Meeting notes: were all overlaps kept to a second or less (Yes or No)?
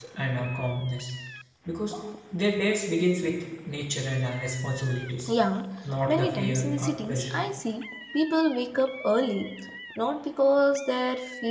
No